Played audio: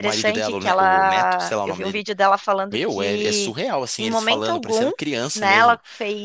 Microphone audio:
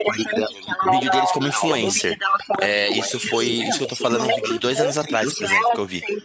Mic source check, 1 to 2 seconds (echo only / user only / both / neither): both